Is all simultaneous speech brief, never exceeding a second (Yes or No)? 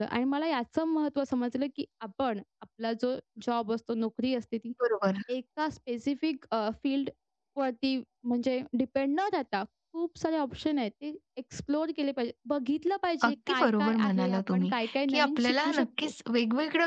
No